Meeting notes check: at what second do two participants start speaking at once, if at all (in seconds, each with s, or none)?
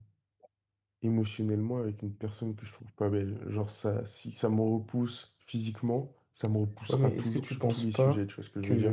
6.9 s